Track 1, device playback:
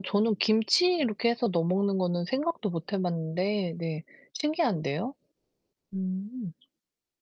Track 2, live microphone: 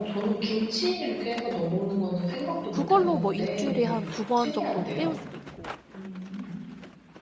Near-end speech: present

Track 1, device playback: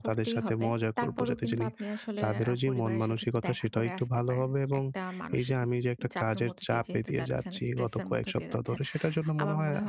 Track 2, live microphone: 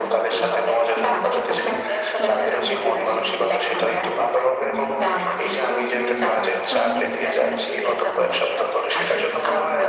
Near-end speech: present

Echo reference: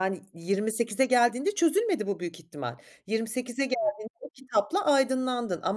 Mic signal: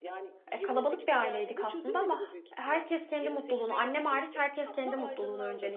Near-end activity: present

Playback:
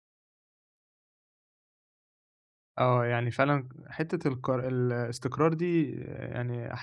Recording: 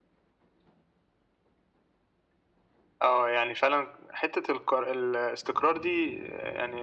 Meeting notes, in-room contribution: none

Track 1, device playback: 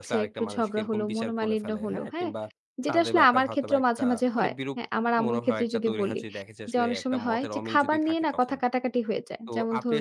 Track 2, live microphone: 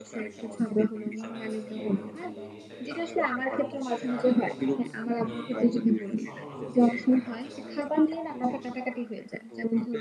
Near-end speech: present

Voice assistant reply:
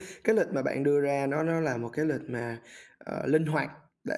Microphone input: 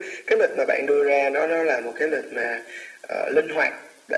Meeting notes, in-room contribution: none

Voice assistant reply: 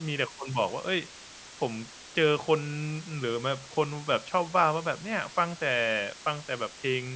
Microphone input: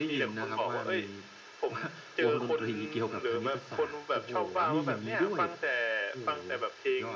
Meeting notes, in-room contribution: present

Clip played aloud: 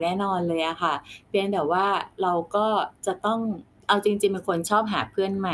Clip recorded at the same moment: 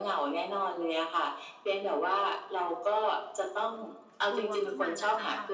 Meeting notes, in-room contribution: present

